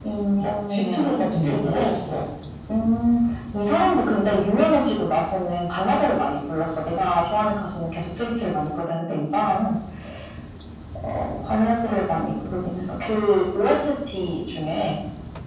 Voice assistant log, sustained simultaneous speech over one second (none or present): present